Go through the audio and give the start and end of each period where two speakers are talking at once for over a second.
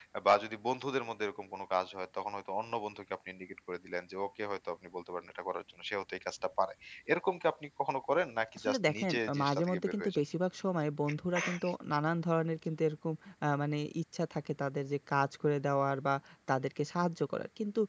8.6-10.1

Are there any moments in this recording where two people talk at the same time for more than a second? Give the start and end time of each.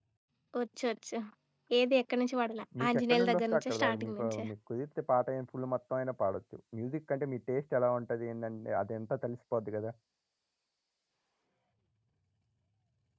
2.8-4.5

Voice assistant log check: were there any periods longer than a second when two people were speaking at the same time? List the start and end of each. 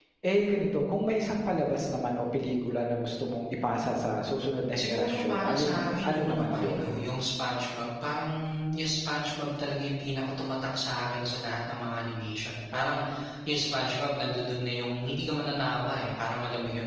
4.8-6.8

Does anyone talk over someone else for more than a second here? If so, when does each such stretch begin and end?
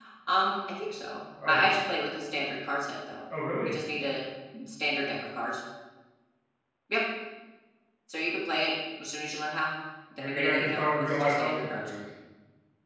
10.2-11.7

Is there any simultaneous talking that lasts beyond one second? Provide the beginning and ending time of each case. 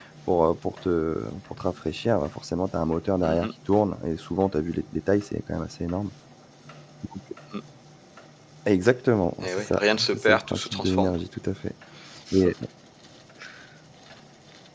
9.4-11.1

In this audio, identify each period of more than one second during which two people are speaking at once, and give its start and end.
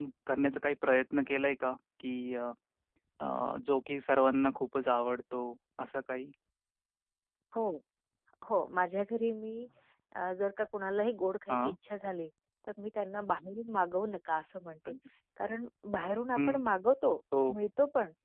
none

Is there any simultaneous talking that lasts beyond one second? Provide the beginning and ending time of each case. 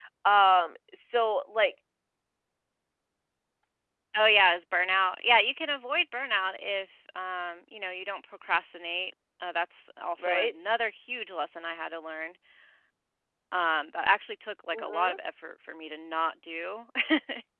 none

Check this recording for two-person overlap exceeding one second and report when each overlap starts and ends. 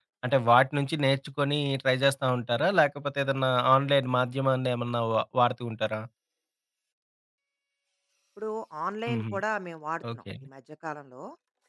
none

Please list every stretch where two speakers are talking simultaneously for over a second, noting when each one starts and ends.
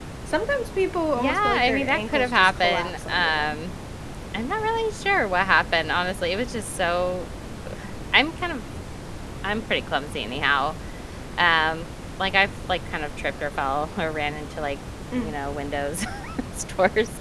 1.2-3.6

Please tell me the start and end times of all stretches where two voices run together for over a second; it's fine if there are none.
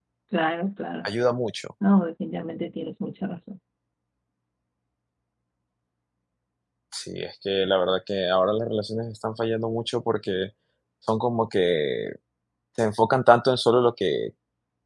none

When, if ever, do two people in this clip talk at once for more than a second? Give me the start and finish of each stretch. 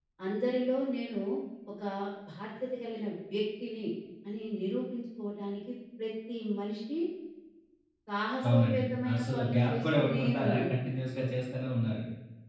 8.5-10.7

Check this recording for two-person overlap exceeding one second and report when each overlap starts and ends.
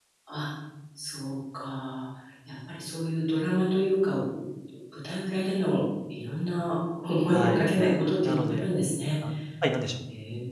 none

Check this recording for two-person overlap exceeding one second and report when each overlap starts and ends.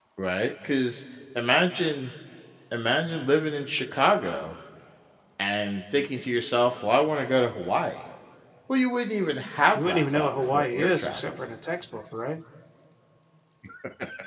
9.7-11.4

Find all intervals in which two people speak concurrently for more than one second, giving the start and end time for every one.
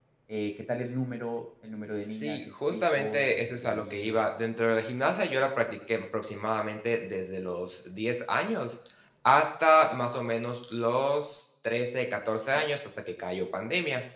1.9-4.2

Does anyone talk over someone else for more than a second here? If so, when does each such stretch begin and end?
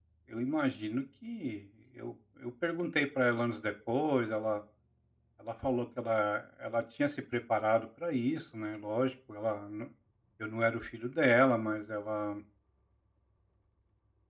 none

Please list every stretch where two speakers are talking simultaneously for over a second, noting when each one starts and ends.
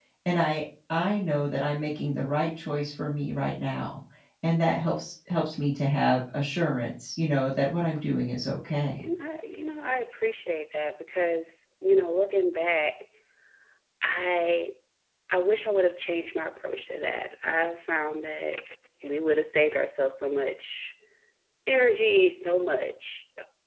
none

